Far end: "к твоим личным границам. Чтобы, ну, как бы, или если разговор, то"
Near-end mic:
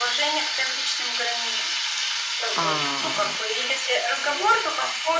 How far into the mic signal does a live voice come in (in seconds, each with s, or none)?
2.5 s